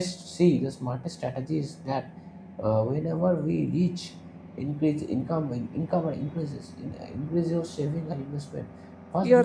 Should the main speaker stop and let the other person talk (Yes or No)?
No